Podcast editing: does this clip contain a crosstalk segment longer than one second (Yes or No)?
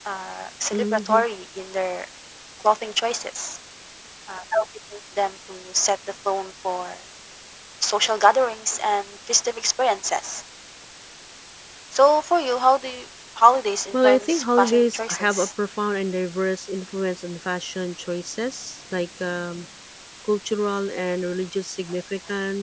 Yes